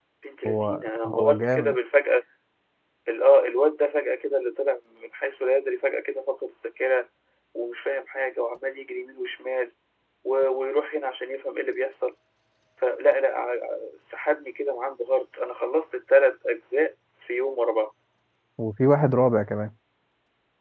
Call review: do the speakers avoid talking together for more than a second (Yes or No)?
No